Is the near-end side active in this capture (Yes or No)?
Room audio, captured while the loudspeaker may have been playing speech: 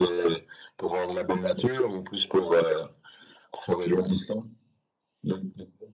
No